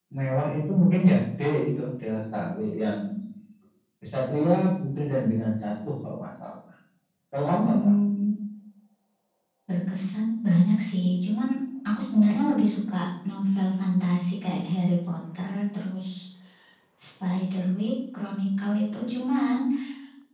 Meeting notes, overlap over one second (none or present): none